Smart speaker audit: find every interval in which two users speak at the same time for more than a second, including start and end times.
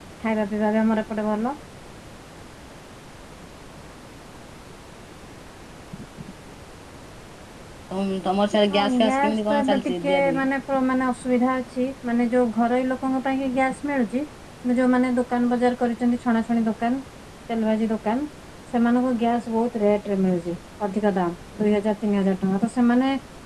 8.7-10.4

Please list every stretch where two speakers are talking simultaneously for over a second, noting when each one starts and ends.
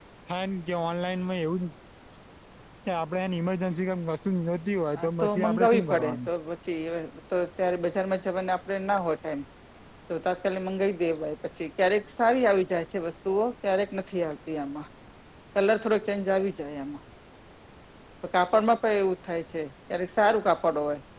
5.0-6.3

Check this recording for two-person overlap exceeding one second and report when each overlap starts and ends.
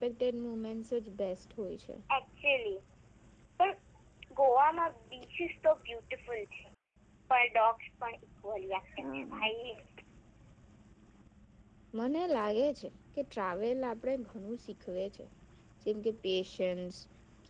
none

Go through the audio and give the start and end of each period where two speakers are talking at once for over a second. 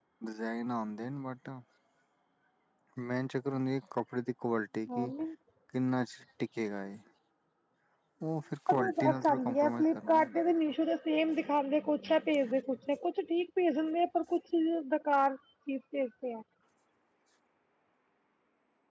8.8-10.5

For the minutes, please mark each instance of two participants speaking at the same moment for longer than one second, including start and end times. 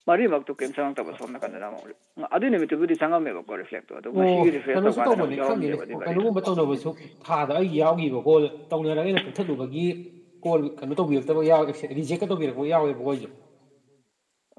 4.2-6.3

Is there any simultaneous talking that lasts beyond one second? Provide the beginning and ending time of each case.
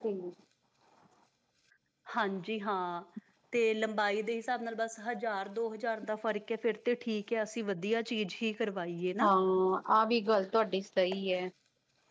none

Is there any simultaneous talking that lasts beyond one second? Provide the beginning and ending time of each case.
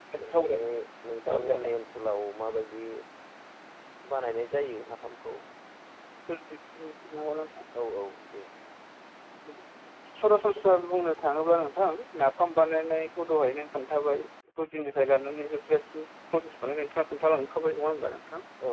none

